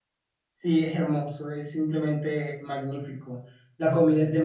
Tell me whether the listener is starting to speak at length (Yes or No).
No